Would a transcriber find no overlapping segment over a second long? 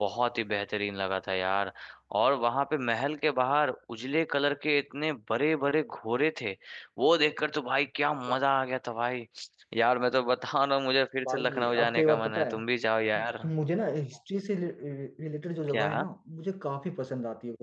No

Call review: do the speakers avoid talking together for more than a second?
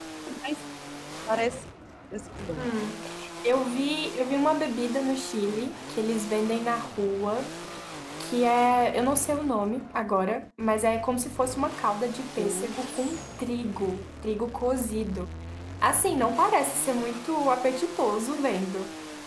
Yes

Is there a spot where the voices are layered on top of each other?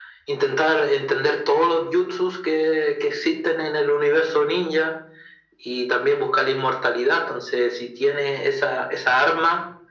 No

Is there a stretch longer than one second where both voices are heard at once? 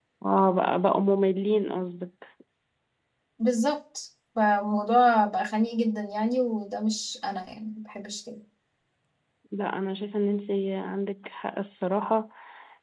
No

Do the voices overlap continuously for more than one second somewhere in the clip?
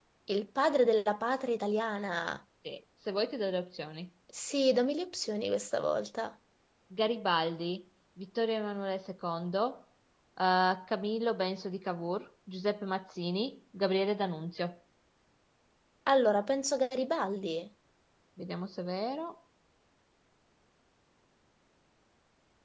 No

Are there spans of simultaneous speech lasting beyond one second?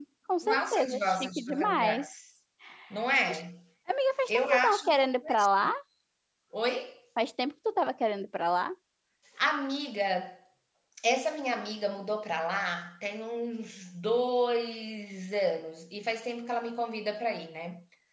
Yes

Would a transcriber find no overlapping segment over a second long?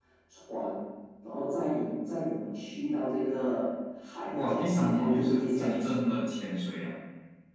No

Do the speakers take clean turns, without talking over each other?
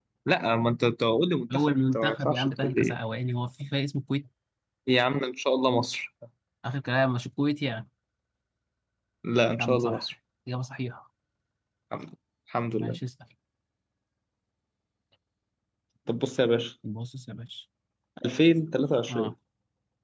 No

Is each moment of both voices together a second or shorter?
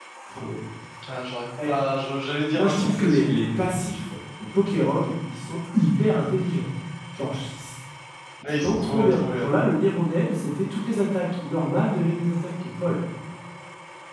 No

